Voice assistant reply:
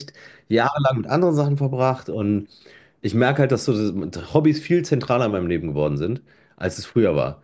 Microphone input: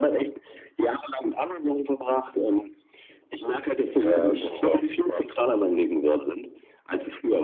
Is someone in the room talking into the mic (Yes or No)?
Yes